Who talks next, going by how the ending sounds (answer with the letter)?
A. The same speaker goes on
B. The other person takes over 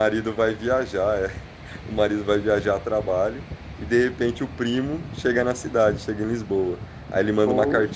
A